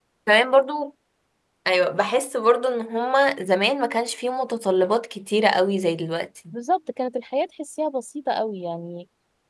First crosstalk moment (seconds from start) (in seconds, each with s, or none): none